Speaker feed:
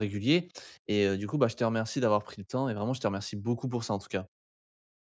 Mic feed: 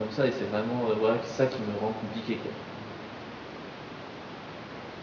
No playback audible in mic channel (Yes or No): Yes